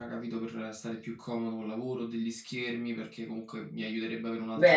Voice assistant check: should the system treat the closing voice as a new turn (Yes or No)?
Yes